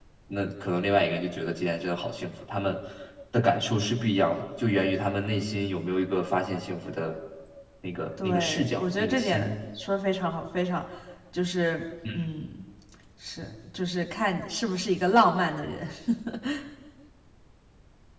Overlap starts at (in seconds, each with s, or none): 8.2 s